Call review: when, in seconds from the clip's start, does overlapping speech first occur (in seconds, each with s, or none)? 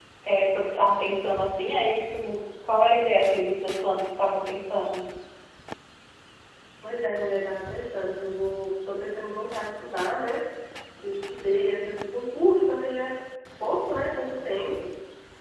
none